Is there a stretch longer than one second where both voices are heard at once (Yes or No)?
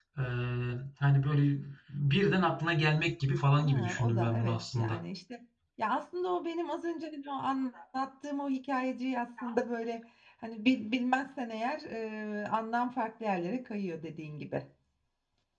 Yes